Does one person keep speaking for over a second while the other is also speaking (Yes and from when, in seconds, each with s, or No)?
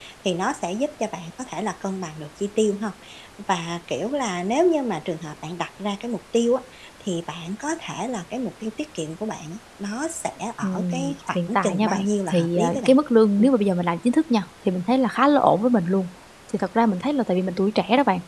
Yes, from 10.6 s